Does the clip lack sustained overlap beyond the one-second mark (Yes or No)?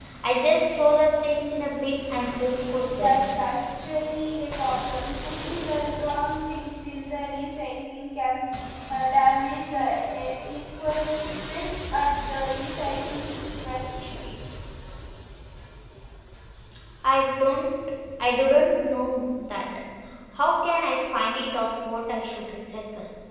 Yes